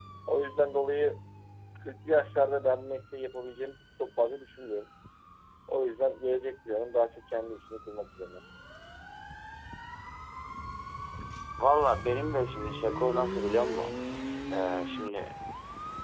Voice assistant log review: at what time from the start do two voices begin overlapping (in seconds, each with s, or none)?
none